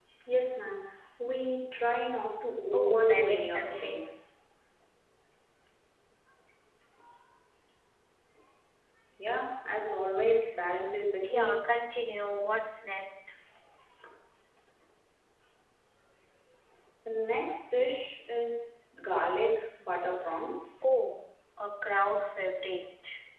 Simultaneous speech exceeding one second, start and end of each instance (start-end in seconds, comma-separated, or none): 2.7-4.2